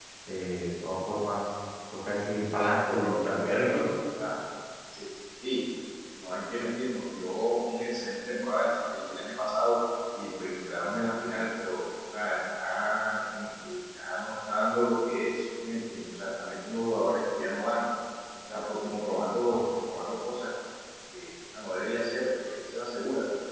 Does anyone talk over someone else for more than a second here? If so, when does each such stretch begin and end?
2.5-3.8

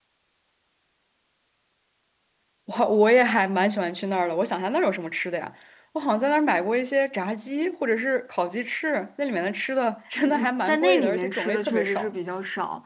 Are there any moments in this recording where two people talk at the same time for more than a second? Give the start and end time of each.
10.2-12.1

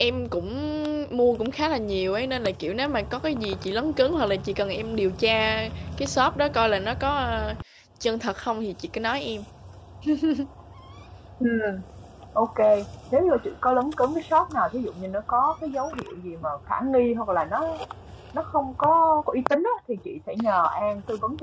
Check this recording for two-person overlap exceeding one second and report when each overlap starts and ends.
none

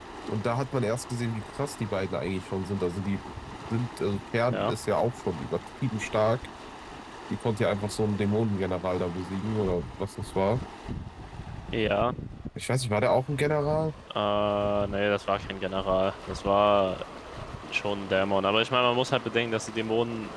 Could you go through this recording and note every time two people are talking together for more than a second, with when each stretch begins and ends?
none

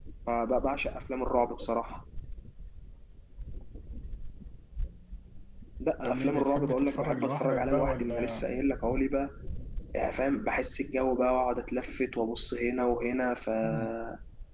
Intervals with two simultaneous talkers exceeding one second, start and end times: 6.0-8.4

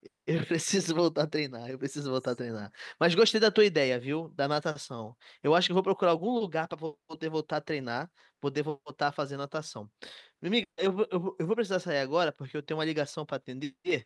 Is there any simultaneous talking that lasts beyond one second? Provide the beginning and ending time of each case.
none

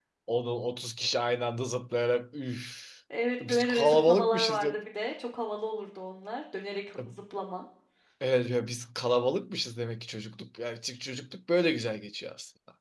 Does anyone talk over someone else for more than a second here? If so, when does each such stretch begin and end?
3.4-4.8

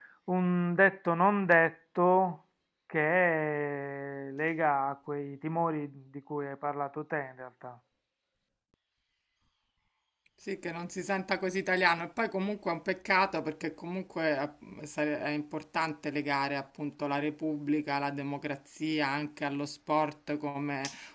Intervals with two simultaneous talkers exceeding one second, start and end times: none

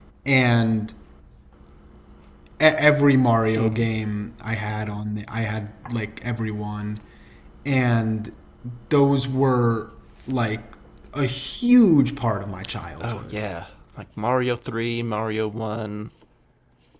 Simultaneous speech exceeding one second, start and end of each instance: none

